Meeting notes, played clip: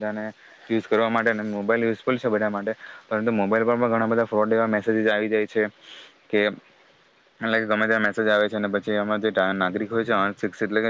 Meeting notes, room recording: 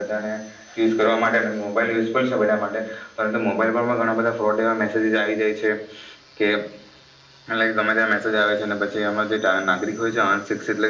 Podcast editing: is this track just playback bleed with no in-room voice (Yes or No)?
Yes